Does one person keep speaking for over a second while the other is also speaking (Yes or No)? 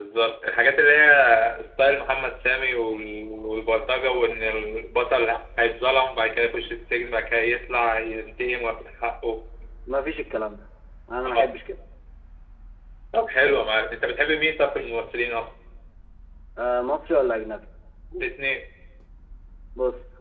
No